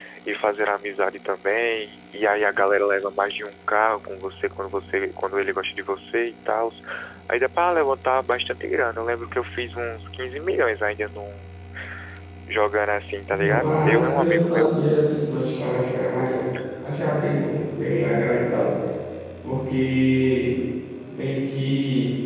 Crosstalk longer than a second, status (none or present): present